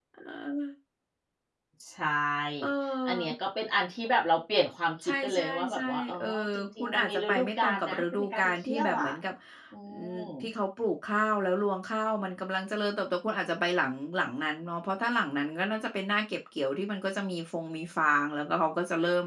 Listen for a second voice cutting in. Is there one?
Yes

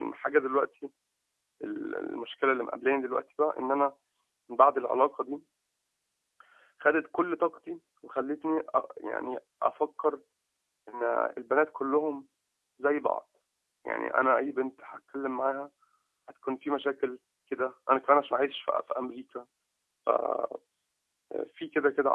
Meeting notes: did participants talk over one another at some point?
No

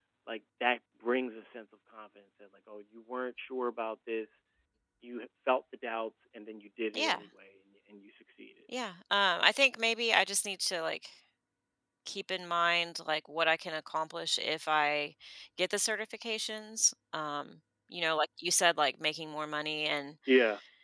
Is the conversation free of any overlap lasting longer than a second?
Yes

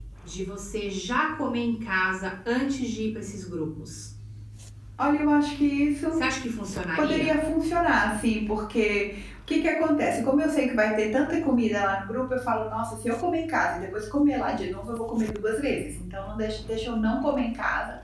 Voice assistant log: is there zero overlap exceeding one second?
Yes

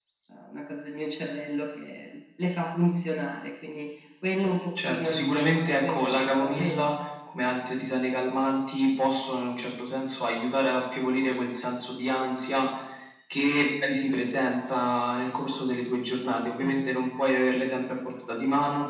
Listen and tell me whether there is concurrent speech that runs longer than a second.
Yes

